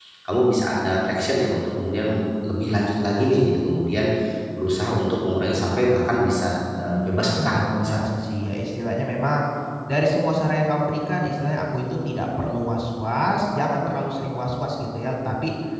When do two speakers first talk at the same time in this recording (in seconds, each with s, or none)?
6.8 s